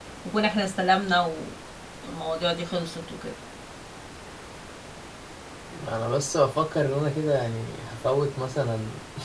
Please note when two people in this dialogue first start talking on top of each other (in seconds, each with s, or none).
none